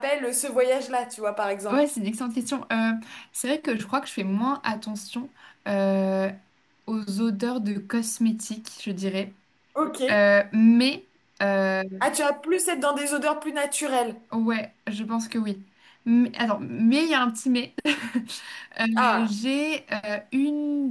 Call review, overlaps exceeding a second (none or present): none